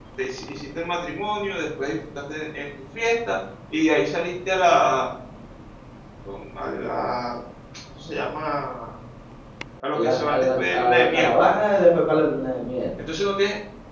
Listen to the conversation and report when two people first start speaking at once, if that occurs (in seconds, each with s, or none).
9.9 s